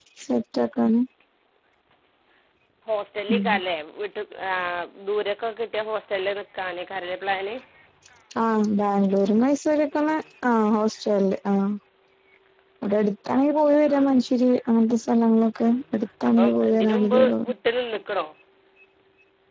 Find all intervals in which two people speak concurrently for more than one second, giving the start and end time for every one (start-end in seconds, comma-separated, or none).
16.3-17.5